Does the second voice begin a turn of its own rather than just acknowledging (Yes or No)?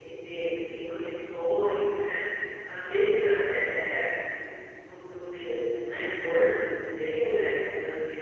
No